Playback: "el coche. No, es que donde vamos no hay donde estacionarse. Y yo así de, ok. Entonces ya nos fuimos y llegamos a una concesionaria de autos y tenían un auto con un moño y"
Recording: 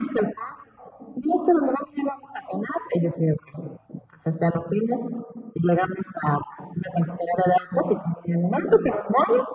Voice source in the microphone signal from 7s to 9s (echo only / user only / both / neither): echo only